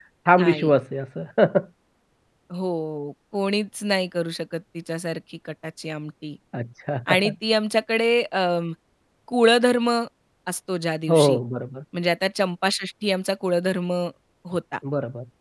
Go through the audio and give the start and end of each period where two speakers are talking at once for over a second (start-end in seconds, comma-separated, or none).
none